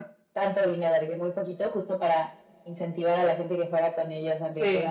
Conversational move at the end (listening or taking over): listening